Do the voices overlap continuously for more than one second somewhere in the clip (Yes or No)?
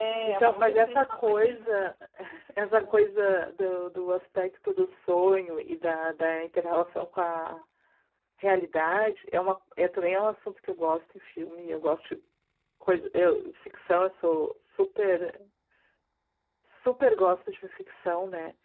Yes